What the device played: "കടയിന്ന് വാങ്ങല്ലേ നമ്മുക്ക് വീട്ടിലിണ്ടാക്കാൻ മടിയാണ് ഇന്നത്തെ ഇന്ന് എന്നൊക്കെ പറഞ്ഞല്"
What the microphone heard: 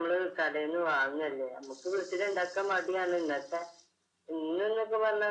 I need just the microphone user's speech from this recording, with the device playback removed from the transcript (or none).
none